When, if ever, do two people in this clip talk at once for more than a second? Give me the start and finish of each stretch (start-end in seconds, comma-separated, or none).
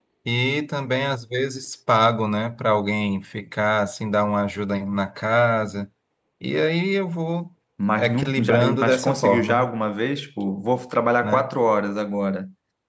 8.0-9.7